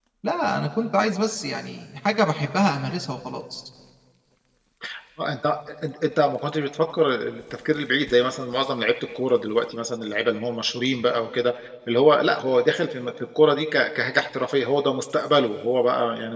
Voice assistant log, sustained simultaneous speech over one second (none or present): none